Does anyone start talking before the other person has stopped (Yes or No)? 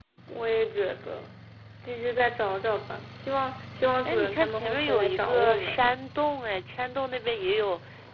Yes